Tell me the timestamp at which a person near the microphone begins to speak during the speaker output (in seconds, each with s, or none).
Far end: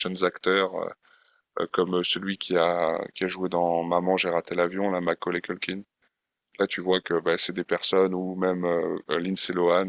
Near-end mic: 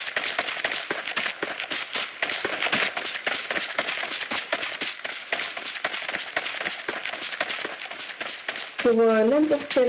8.8 s